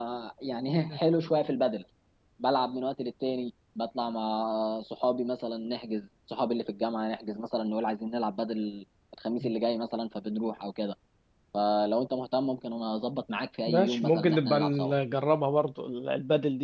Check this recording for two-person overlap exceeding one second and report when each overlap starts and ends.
13.7-14.9

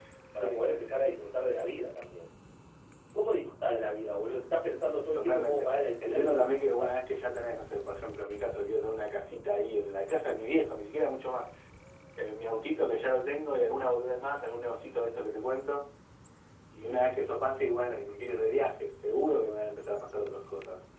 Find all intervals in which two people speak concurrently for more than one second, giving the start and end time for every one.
5.1-7.0

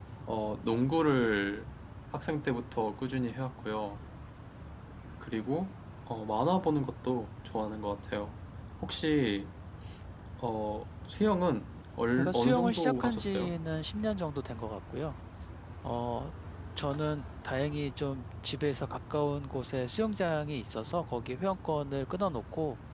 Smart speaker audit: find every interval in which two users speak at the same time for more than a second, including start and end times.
12.2-13.5

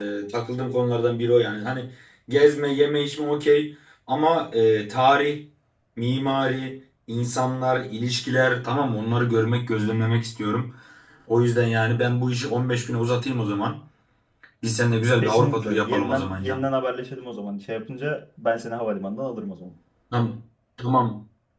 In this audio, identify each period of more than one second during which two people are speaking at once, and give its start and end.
15.2-16.6

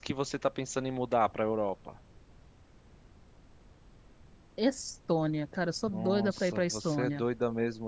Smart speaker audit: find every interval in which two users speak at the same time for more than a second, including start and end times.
5.8-7.2

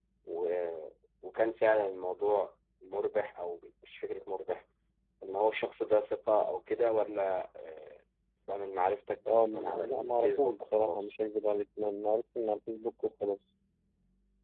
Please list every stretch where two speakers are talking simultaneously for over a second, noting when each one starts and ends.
9.3-11.1

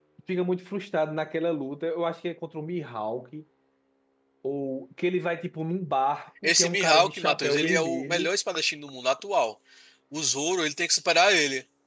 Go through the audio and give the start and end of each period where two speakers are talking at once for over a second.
6.4-8.3

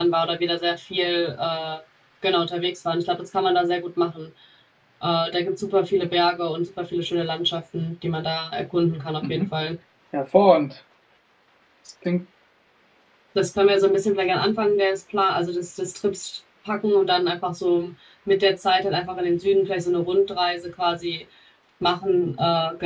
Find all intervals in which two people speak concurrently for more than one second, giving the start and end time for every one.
none

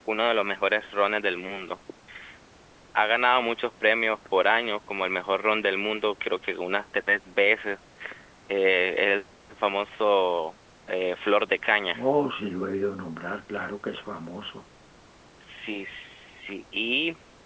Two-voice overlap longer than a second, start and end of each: none

